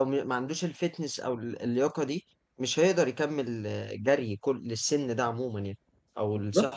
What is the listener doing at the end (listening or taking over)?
taking over